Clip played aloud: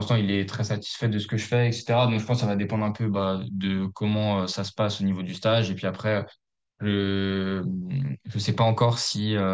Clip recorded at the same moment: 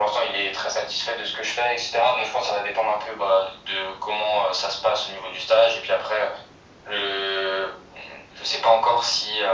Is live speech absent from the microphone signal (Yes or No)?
Yes